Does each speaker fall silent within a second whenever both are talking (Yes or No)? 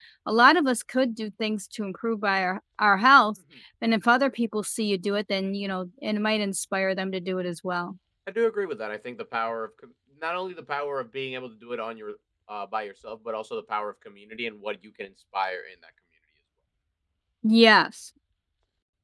Yes